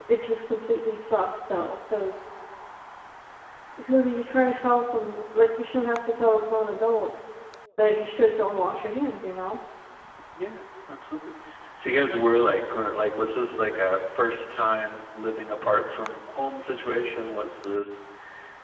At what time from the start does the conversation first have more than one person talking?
none

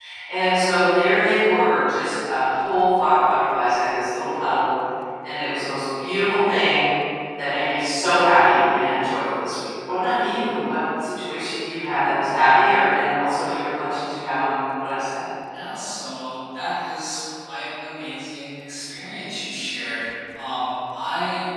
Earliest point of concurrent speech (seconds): none

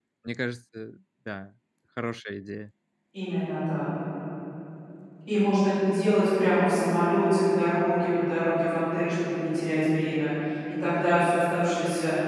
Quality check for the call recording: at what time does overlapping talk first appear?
none

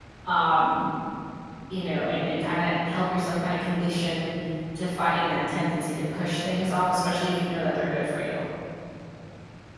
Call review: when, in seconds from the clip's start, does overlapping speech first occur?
none

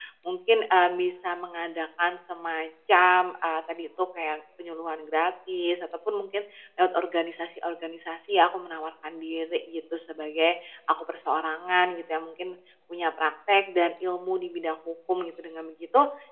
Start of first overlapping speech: none

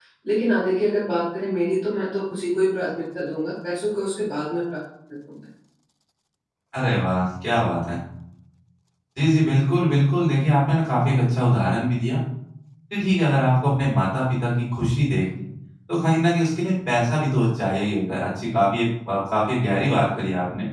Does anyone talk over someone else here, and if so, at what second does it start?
none

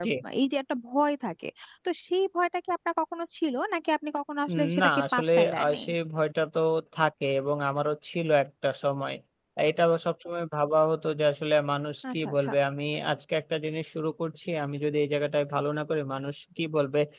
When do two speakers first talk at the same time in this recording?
4.5 s

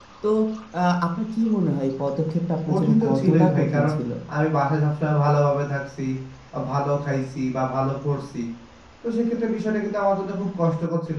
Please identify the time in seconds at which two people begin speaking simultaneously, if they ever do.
2.7 s

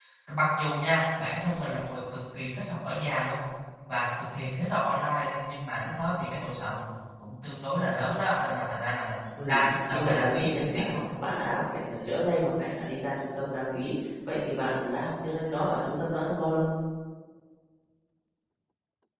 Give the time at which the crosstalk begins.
9.4 s

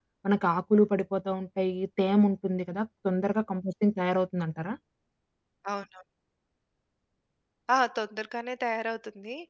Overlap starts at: none

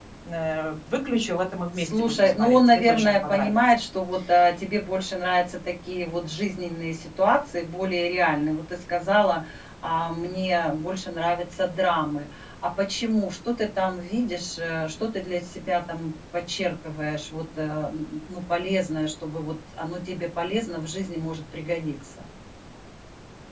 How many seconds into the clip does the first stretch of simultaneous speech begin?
1.8 s

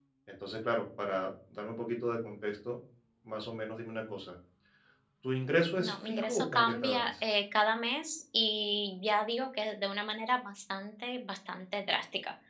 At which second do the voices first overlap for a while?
5.8 s

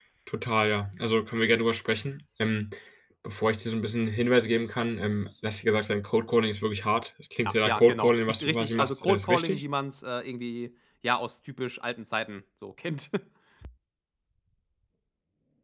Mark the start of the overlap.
7.4 s

